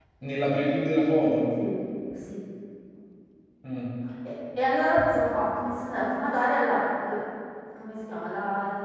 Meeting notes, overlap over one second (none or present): none